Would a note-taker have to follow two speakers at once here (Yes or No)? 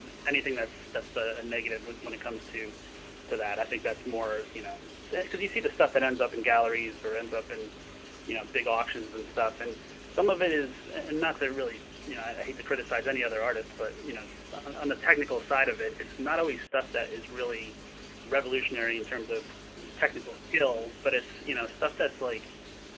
No